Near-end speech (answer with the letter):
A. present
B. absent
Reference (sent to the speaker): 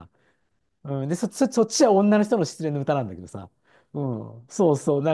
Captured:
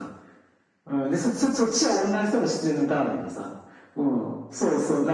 B